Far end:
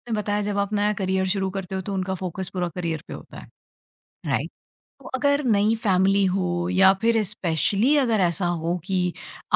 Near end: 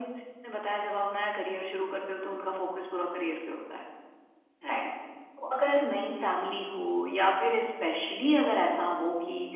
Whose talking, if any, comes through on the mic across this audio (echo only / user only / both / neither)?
echo only